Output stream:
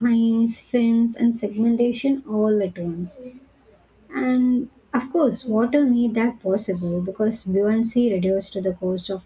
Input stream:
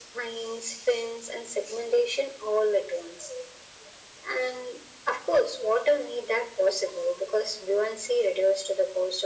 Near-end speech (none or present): none